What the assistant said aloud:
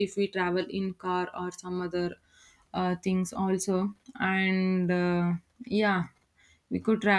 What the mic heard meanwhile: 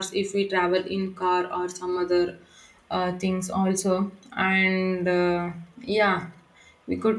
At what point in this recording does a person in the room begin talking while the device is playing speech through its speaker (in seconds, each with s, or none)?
none